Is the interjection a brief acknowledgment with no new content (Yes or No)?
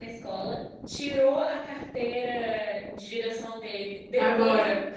Yes